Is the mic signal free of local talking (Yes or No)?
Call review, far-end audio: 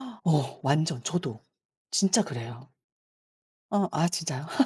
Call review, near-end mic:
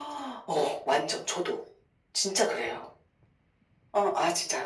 Yes